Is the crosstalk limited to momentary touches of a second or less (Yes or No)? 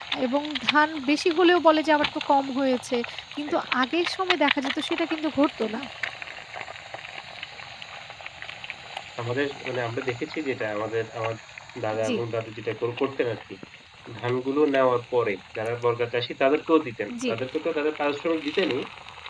Yes